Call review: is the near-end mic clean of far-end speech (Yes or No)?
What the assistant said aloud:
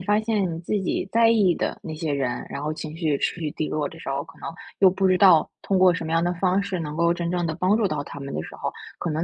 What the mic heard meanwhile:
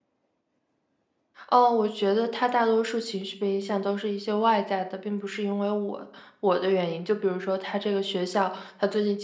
Yes